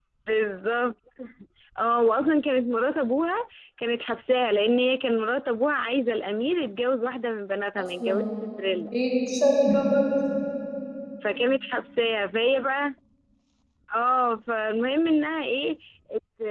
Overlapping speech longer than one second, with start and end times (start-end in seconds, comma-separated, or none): none